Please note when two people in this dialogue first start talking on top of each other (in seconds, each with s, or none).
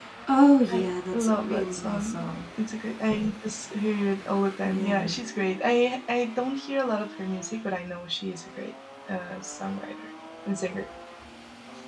0.7 s